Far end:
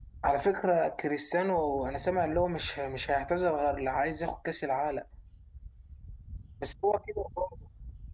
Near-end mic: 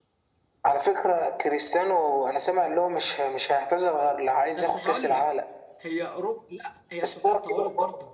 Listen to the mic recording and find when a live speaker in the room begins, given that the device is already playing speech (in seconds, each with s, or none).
4.6 s